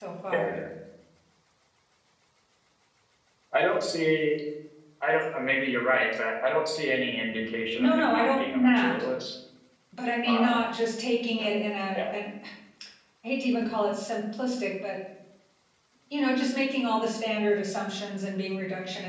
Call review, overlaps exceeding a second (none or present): present